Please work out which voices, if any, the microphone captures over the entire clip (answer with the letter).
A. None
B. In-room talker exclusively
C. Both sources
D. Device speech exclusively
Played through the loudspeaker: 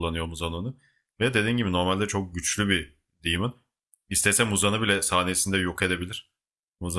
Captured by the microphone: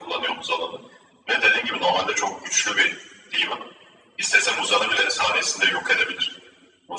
D